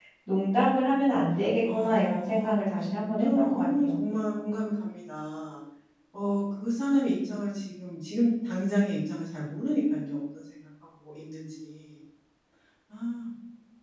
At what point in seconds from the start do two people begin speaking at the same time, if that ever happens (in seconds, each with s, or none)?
1.6 s